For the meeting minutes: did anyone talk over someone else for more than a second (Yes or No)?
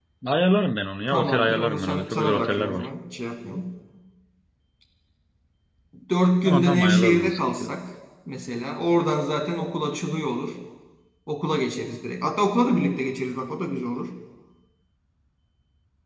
Yes